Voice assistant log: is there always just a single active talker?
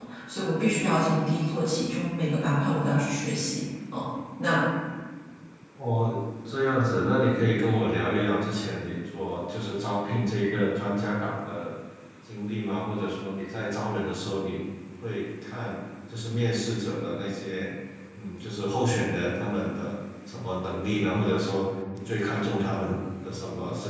Yes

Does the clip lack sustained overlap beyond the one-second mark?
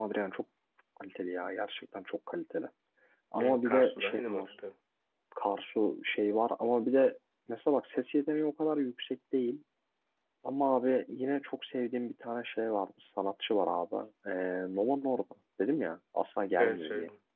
No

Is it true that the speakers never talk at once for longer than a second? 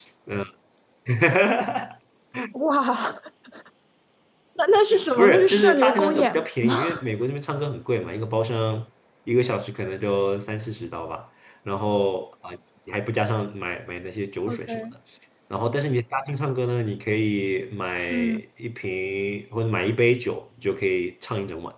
No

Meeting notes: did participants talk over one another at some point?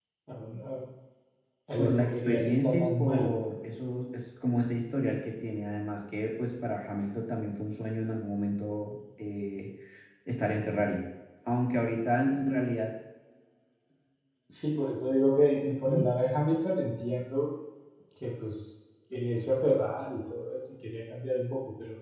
Yes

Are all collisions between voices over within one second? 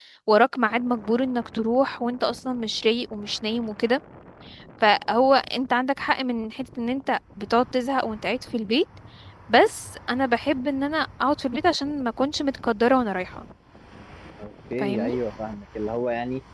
Yes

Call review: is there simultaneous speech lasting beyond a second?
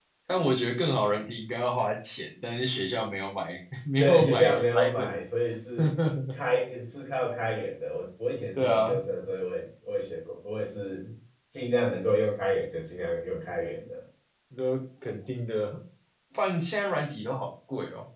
Yes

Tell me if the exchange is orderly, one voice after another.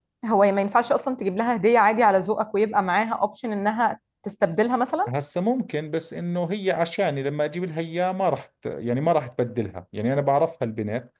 Yes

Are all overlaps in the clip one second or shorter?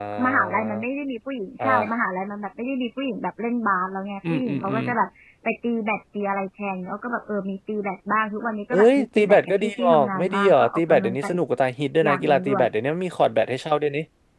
No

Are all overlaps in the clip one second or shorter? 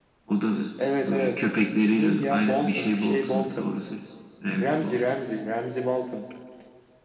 No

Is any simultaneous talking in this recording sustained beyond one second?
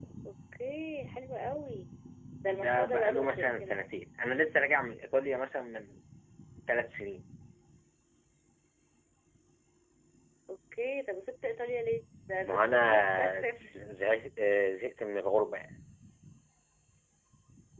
Yes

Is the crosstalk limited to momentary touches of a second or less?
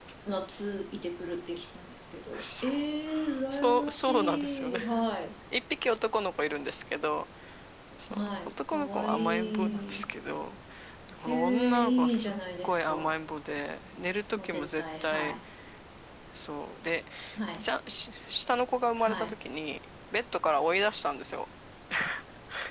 No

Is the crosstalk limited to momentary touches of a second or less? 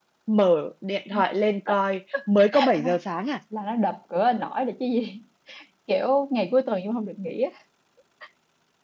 Yes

